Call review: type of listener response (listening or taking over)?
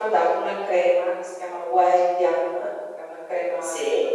listening